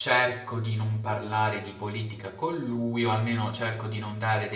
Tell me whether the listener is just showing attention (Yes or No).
Yes